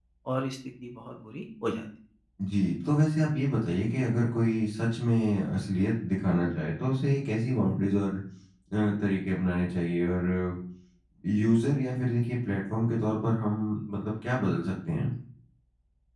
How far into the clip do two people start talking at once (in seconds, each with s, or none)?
none